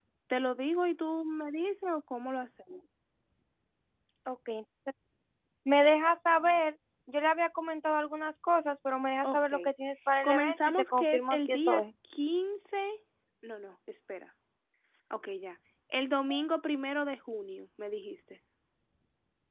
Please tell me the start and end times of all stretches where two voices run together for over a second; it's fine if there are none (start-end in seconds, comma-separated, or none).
10.2-11.8